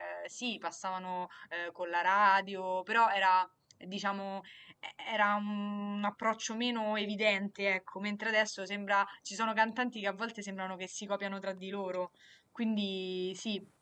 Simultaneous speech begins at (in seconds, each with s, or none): none